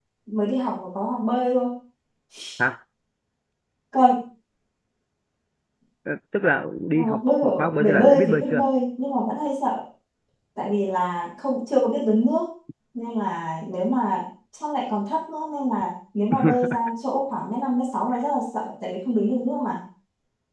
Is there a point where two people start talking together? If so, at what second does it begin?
6.9 s

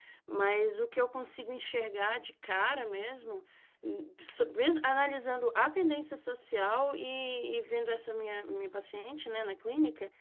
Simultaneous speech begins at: none

